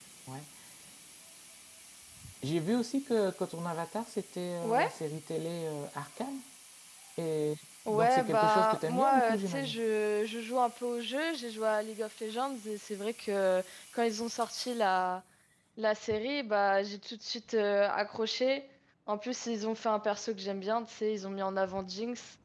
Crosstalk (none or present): present